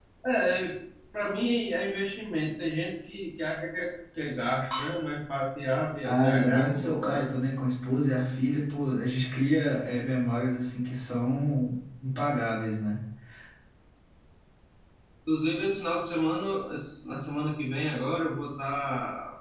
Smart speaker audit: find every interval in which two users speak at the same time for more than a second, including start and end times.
6.0-7.3

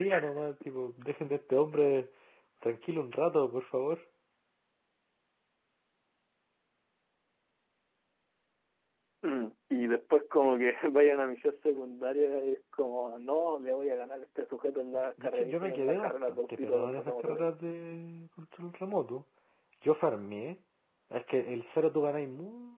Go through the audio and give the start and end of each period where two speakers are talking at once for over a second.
14.9-17.4

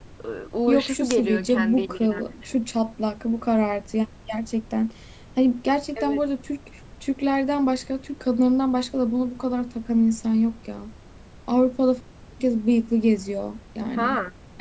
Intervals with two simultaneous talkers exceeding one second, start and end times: 0.7-2.2

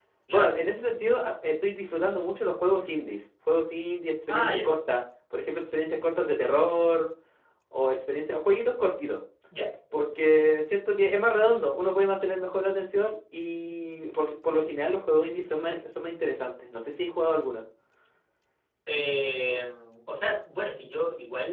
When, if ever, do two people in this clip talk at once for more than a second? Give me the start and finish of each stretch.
none

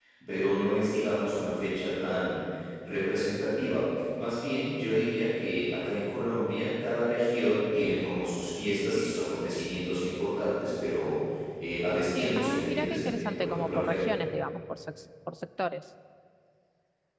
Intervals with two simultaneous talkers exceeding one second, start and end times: 12.4-14.0

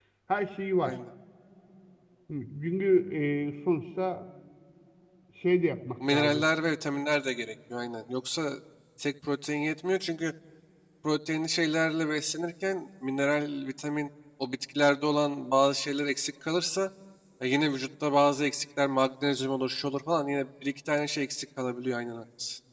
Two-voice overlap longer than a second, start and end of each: none

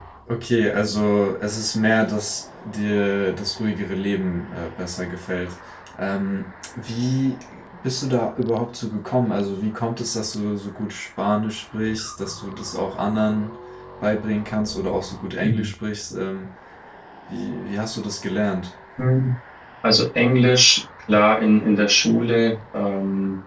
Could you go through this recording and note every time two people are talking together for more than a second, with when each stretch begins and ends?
none

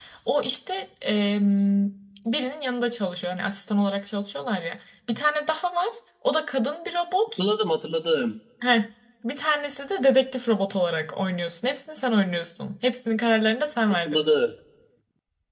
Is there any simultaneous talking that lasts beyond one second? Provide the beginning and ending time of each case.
none

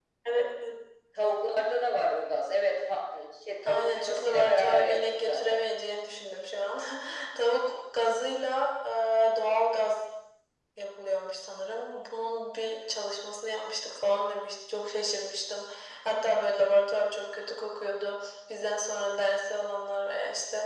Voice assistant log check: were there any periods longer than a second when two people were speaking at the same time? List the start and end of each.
3.7-5.6

